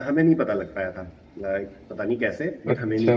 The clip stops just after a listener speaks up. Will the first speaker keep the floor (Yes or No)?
No